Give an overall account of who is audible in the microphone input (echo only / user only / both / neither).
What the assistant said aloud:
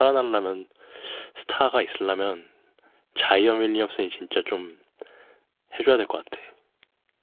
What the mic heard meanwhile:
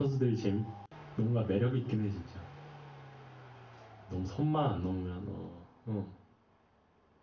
user only